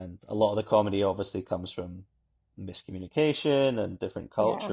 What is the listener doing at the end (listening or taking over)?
listening